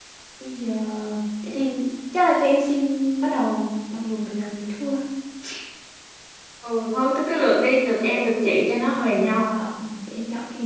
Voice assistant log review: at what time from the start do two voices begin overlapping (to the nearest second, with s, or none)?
none